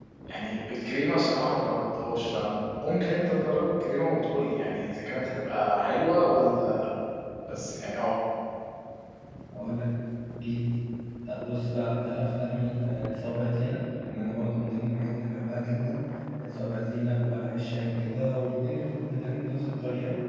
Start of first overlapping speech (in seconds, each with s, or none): none